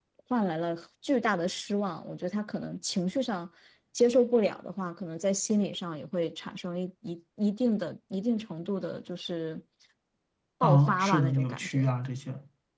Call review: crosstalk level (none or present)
present